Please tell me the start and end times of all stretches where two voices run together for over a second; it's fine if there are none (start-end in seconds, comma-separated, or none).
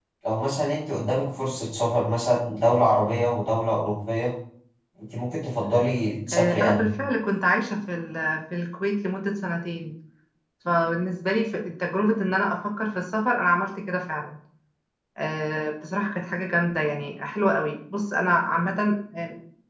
none